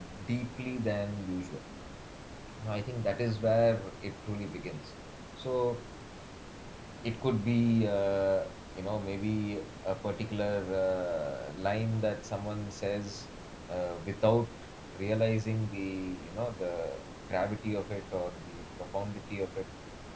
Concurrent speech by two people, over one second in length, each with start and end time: none

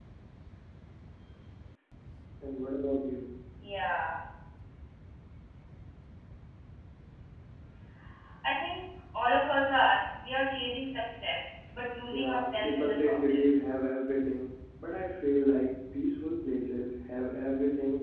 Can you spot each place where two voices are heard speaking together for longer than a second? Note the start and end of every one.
12.1-13.6

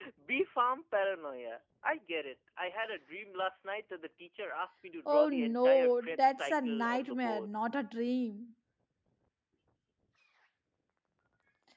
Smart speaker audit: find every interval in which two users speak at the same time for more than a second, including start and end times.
5.0-7.5

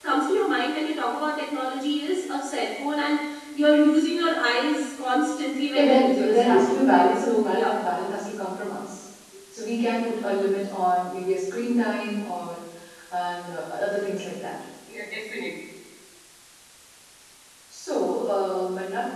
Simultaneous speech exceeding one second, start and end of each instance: 5.7-7.7

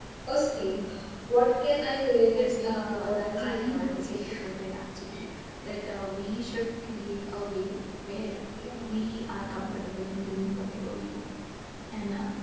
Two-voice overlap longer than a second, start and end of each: 2.3-4.2

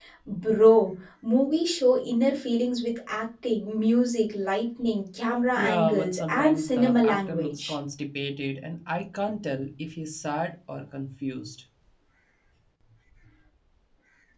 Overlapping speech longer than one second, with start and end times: 5.6-7.7

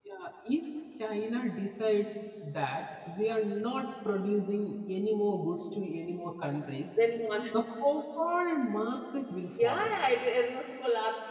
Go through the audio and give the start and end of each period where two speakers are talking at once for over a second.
none

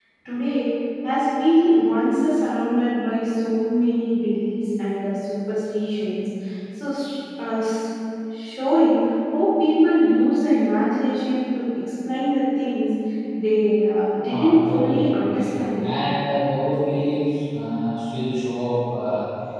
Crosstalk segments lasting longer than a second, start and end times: 14.3-16.0

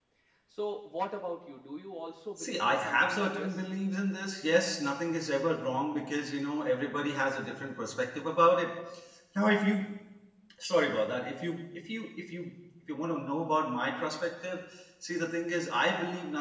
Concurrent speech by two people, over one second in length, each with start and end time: 2.4-3.6

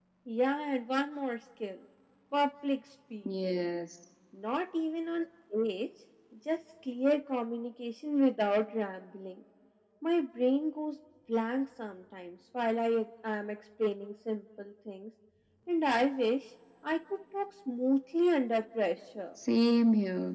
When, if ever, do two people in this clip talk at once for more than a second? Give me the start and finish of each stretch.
none

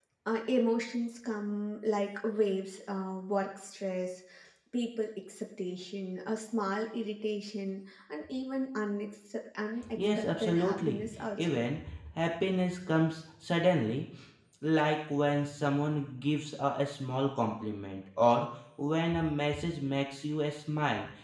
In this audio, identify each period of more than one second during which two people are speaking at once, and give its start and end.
9.9-11.6

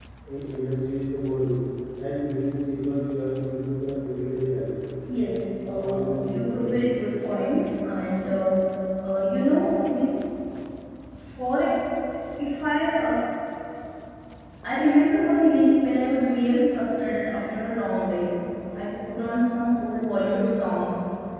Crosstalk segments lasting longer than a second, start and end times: 5.8-7.0

